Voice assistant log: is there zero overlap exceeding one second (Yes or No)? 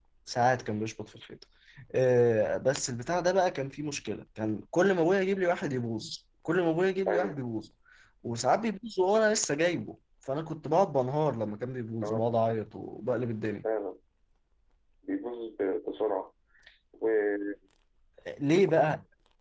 Yes